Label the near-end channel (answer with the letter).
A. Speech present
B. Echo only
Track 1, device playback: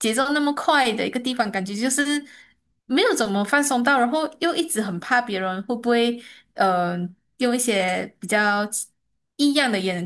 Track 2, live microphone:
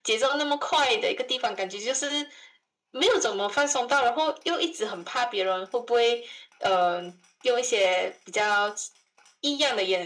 B